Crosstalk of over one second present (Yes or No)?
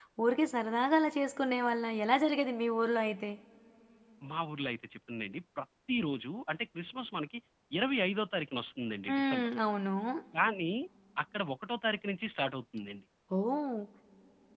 No